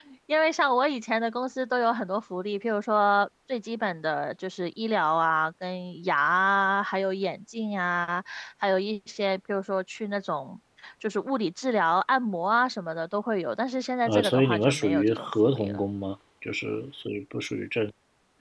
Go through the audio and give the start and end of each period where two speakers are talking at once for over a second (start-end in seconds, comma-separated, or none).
14.1-15.8